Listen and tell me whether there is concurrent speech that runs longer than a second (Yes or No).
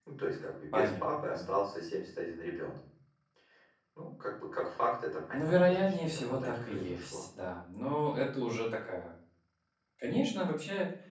Yes